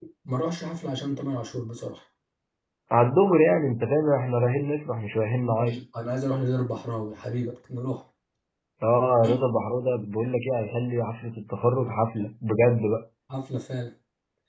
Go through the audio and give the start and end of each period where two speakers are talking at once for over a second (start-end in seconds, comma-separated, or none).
none